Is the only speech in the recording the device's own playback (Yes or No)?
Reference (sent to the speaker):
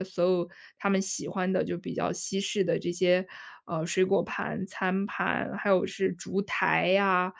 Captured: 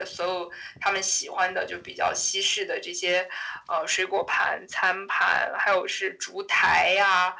Yes